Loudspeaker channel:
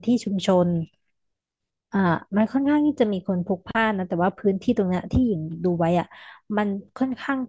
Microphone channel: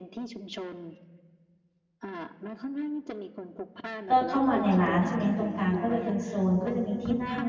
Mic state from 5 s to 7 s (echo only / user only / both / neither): both